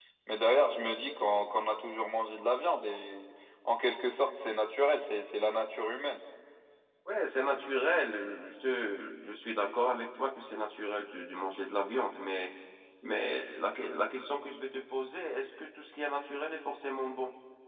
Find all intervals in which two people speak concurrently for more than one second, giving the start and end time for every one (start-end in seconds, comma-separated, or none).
none